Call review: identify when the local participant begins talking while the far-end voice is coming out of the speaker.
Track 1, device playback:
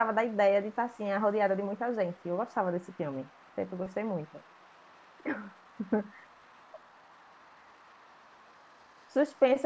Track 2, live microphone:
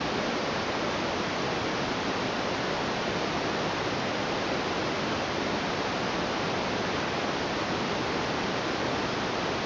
none

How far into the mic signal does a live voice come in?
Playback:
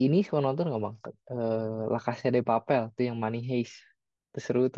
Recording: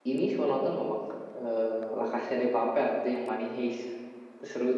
none

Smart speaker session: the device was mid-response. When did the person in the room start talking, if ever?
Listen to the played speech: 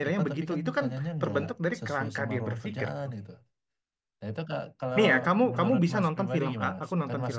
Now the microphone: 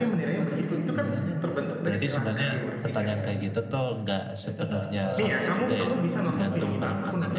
1 s

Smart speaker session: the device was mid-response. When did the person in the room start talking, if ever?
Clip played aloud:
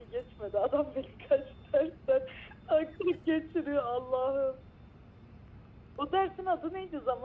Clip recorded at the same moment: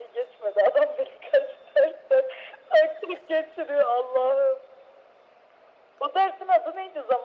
none

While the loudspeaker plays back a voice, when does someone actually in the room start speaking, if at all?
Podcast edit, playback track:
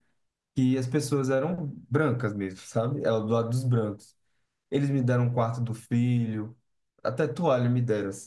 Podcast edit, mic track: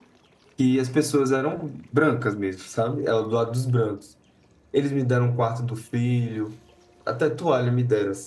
none

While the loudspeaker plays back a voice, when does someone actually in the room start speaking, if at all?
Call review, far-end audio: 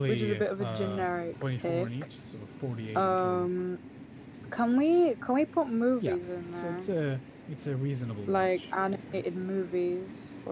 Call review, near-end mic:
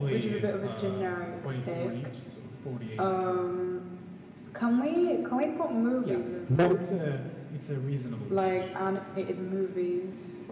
6 s

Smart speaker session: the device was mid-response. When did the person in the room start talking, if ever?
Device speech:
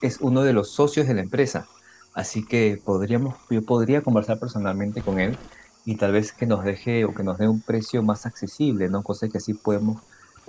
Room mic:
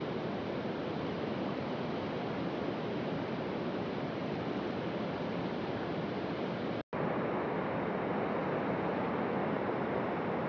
none

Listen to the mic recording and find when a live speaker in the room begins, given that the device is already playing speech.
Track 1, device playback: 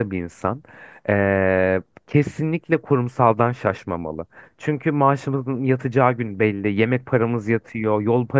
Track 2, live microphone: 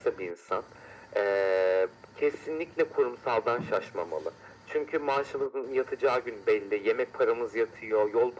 none

